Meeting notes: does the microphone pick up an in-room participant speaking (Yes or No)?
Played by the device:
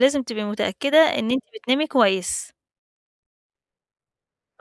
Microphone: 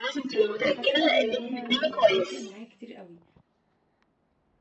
Yes